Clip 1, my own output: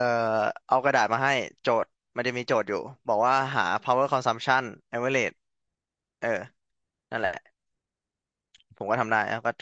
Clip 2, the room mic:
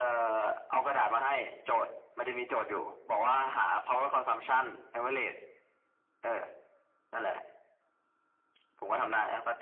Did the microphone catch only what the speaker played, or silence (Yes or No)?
Yes